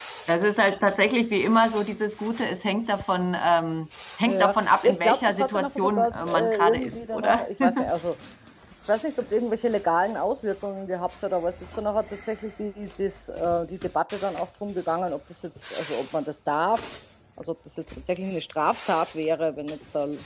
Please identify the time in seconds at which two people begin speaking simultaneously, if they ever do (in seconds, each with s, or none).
4.3 s